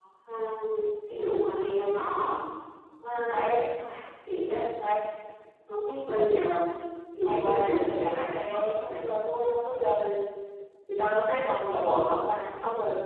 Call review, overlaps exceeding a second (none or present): present